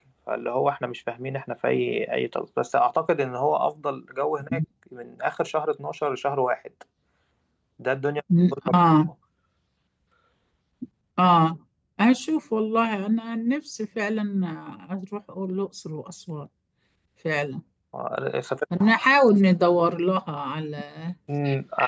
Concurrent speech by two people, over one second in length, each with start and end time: none

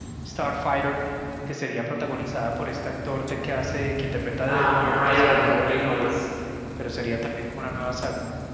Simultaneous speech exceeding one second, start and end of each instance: 4.5-6.1

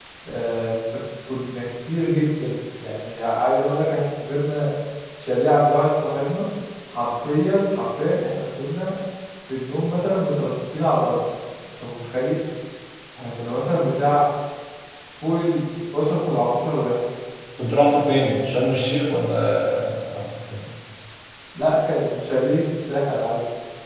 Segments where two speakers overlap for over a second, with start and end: none

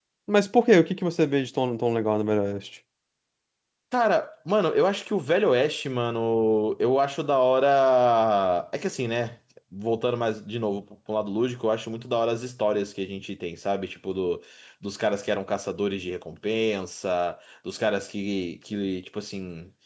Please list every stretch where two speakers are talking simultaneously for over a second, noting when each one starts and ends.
none

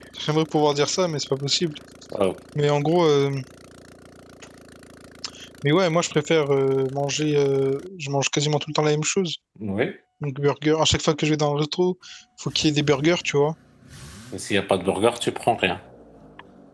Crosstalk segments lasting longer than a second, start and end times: none

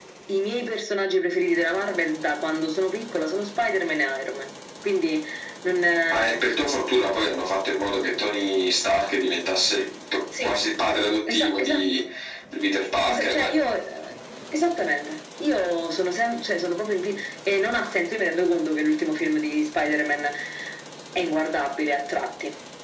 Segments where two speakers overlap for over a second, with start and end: none

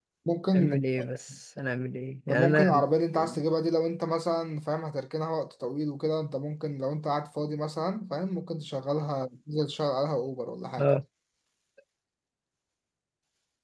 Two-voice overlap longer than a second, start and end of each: none

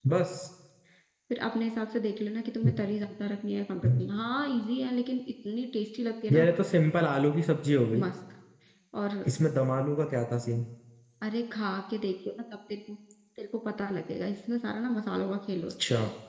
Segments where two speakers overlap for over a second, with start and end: none

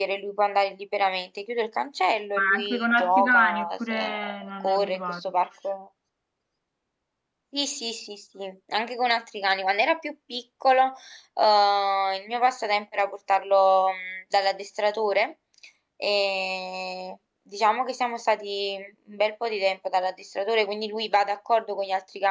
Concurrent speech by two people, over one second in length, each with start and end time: 2.4-5.3

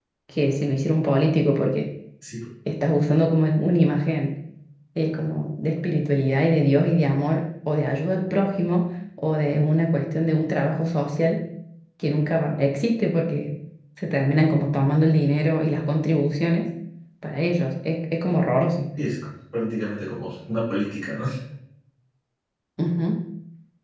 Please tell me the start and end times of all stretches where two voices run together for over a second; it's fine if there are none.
none

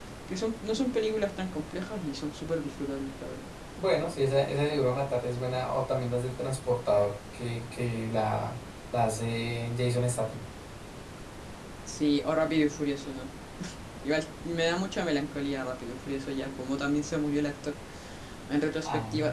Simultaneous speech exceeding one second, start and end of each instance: none

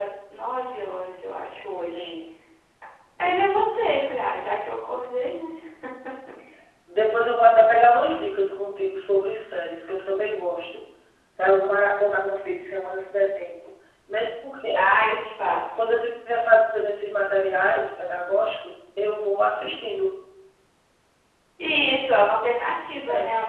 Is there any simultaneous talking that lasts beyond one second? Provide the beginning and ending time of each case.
none

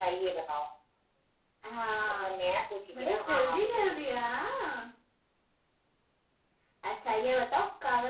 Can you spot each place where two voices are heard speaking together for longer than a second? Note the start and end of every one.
2.9-4.2

